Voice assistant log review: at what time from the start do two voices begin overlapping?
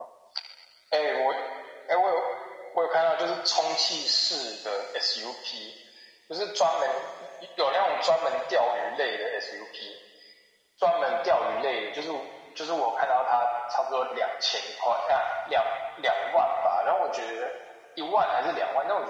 none

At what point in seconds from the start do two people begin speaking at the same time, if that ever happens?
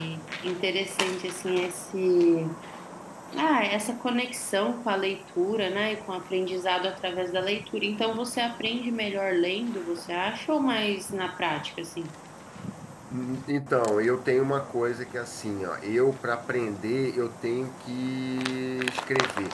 none

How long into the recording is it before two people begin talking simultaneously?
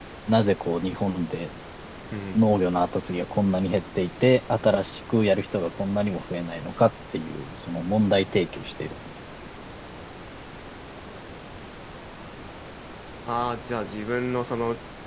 none

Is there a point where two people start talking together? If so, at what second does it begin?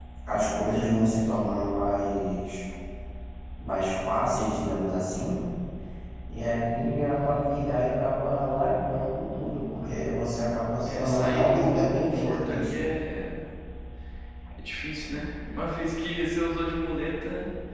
10.8 s

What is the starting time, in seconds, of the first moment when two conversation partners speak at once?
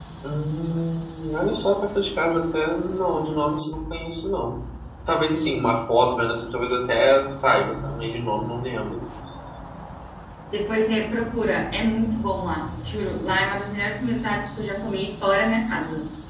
none

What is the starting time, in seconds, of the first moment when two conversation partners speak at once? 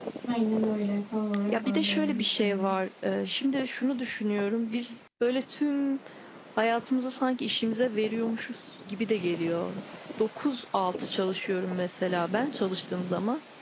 1.5 s

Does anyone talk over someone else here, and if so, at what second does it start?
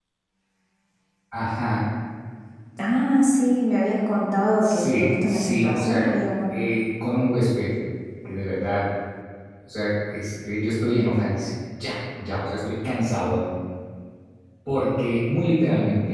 4.6 s

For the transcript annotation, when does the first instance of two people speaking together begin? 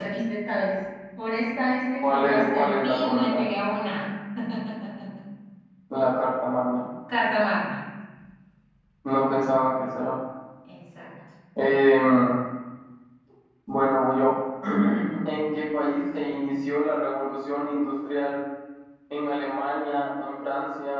2.0 s

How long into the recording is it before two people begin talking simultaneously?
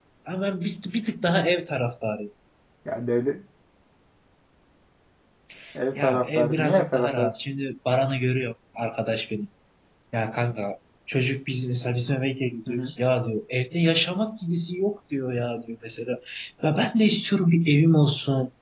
6.0 s

